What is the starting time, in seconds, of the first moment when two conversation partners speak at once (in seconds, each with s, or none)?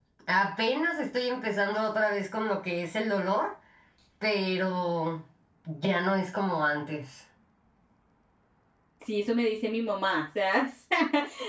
none